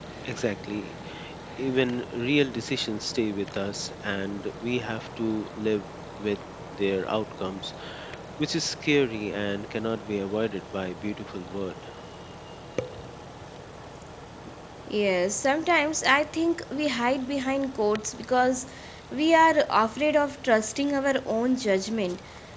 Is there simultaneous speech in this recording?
No

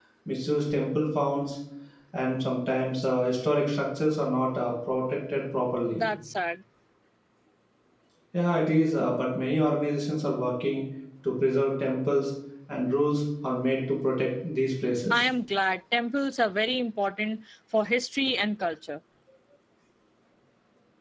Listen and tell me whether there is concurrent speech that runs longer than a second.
No

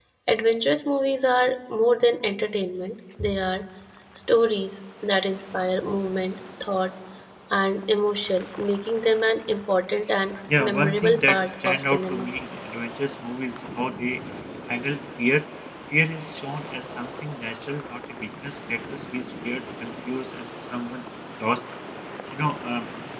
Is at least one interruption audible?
Yes, from 10.6 s

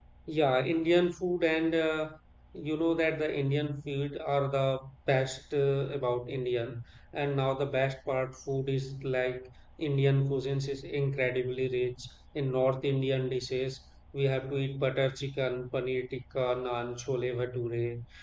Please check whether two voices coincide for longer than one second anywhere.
No

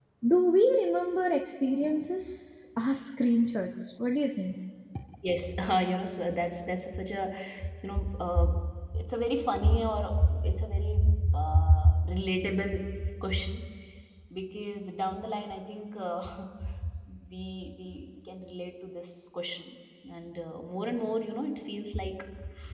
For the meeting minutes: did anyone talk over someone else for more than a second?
No

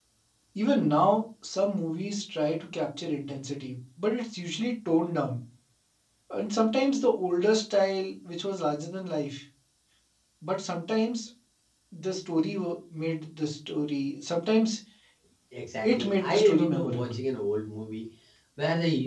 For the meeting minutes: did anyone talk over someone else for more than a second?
Yes, from 15.9 s

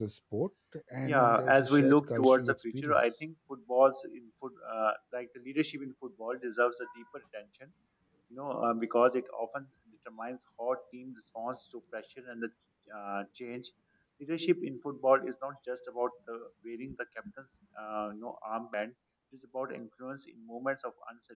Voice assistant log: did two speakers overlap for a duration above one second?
Yes, from 1.0 s

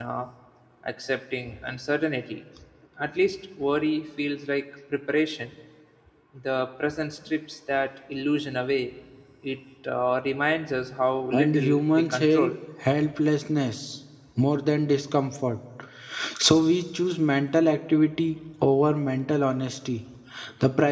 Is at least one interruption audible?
Yes, from 11.3 s

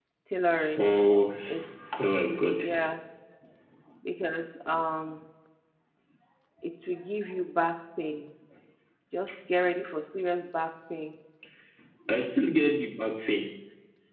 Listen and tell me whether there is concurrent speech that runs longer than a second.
No

